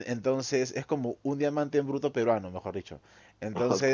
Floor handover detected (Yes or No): No